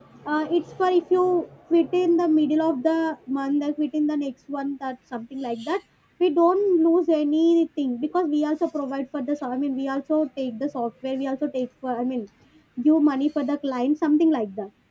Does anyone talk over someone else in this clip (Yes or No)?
No